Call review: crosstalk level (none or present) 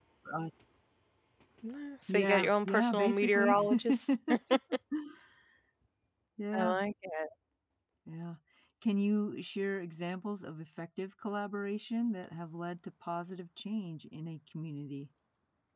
present